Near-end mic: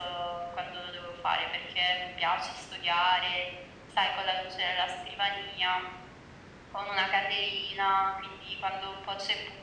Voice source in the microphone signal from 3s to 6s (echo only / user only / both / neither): echo only